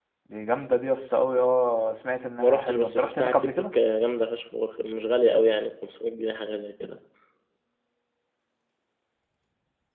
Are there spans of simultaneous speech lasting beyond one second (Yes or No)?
Yes